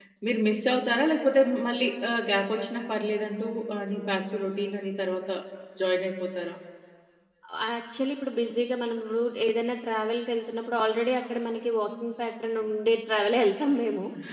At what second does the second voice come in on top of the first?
none

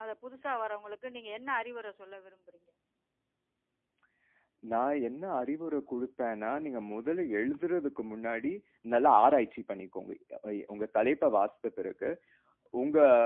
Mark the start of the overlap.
none

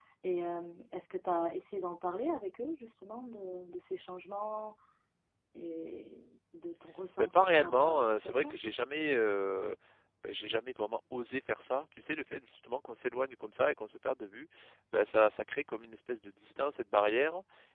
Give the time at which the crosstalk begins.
7.2 s

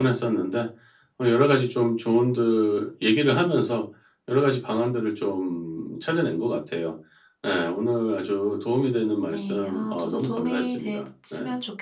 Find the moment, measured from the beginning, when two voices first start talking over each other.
9.3 s

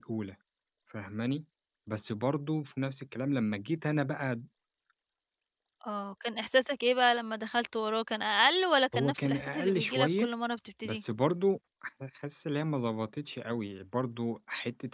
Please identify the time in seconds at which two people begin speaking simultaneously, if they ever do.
8.9 s

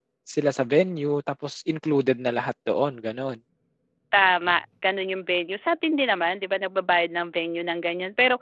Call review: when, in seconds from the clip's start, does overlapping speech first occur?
none

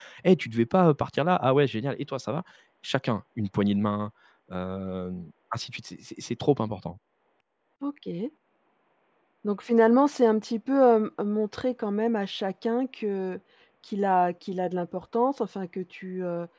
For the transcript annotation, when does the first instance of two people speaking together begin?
none

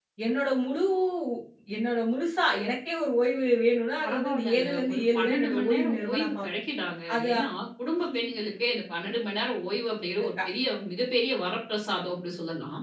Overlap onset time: 4.0 s

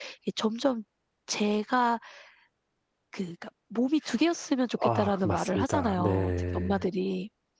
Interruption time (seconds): 4.8 s

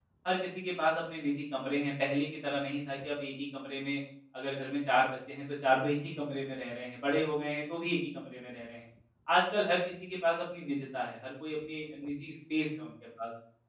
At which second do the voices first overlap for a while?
none

